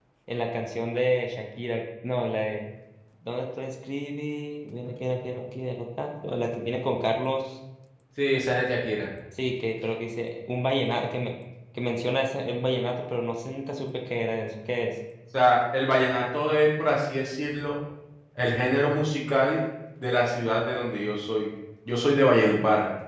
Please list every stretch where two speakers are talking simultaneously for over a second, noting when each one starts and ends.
none

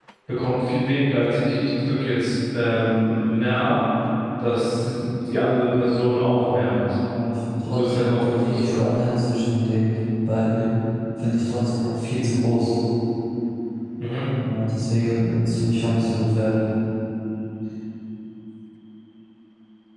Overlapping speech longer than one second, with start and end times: 7.6-8.9

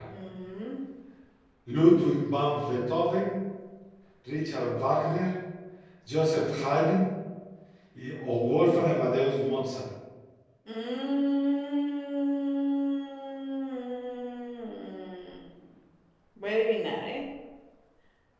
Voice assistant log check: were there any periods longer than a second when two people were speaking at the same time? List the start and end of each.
none

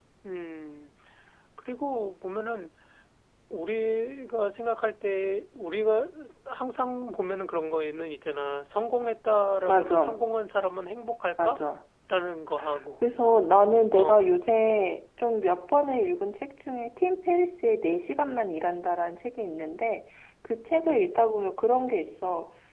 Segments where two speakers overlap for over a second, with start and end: none

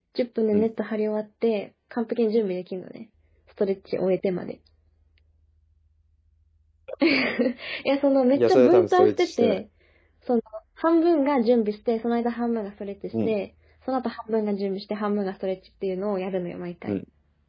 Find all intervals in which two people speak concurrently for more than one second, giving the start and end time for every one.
8.3-9.6

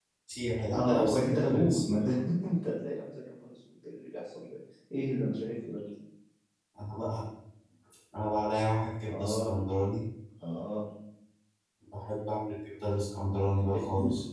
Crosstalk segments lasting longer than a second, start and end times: 0.7-2.0

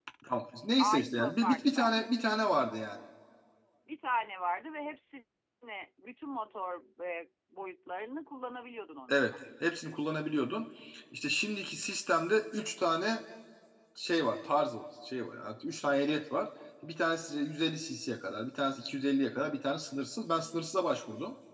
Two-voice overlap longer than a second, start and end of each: 0.8-2.1

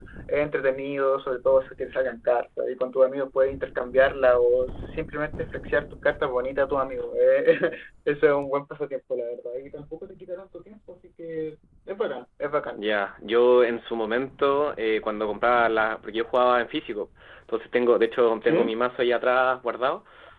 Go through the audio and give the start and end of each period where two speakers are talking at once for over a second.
none

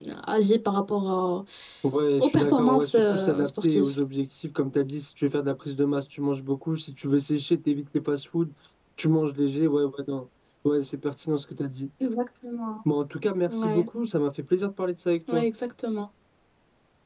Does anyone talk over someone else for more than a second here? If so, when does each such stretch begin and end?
2.2-3.9

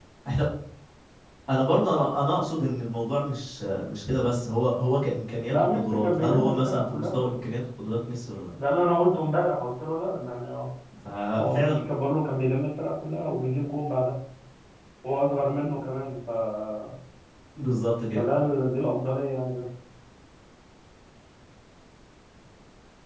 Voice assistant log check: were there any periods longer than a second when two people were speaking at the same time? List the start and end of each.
5.5-7.1

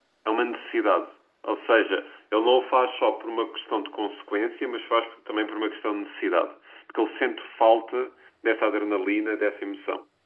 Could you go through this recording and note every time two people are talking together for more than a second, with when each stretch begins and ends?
none

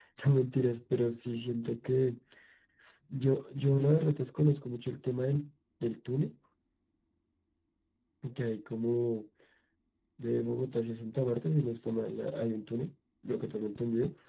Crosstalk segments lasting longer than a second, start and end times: none

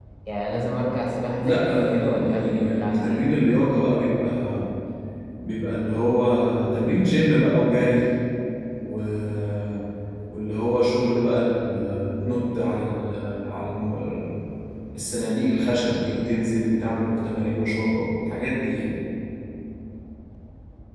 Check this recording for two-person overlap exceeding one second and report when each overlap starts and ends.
1.4-3.2

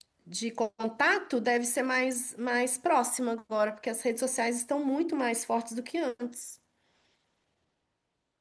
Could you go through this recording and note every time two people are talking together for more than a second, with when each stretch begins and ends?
none

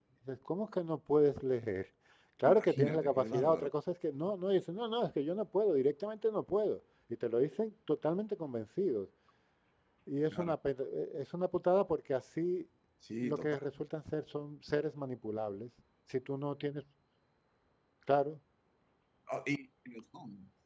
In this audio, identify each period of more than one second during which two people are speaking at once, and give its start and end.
2.5-3.7

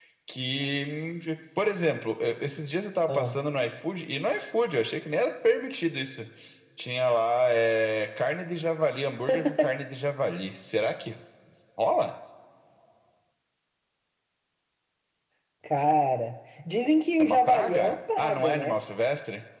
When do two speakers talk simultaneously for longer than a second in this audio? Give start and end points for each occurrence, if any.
17.2-18.8

